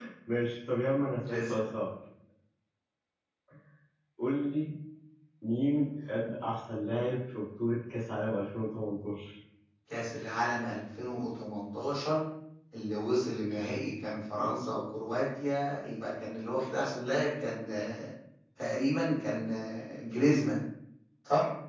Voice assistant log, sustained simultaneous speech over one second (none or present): none